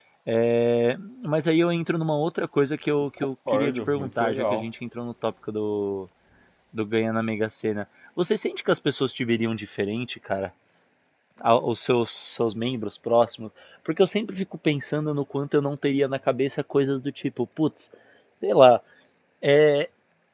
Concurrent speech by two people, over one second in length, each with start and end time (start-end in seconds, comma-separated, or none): 3.2-4.7